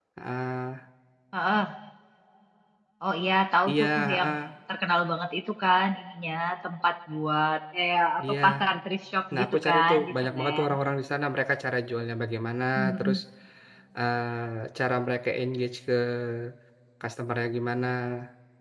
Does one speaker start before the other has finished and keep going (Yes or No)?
Yes